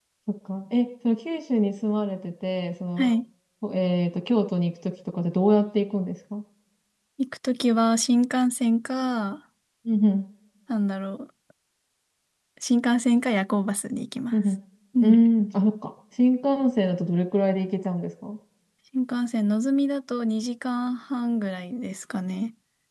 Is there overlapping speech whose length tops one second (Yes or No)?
No